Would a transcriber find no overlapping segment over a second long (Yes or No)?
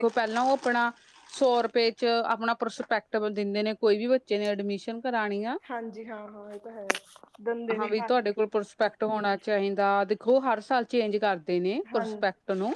Yes